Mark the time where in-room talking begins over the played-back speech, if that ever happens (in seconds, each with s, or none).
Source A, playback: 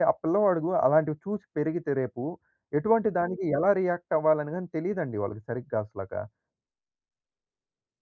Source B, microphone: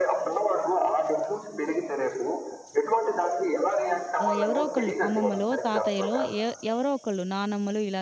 4.2 s